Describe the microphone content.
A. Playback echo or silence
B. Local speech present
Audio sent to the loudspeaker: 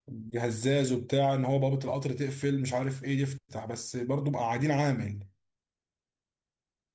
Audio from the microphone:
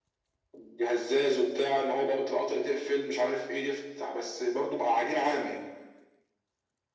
A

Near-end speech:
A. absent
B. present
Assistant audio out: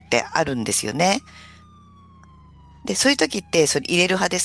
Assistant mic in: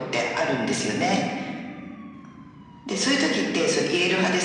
A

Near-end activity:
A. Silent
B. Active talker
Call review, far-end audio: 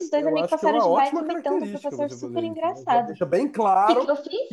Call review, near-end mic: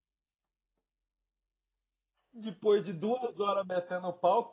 B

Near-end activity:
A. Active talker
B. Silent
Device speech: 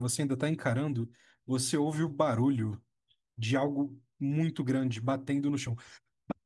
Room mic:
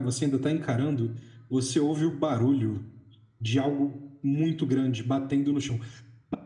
B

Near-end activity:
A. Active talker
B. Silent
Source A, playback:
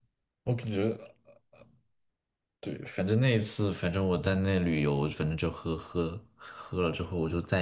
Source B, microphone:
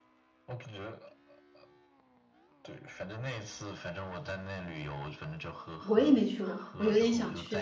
A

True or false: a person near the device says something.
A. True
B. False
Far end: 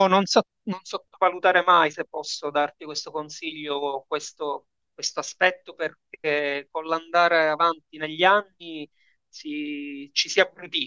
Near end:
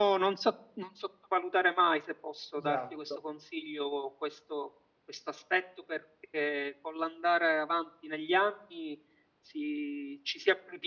A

